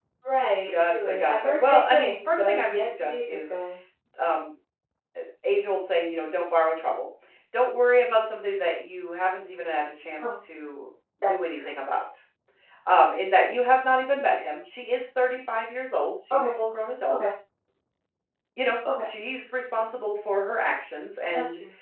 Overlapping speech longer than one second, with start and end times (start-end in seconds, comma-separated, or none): 0.9-3.5